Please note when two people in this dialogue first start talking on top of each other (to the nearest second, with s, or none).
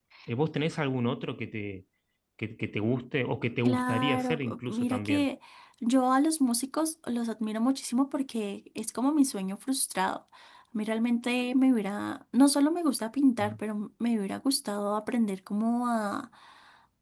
4 s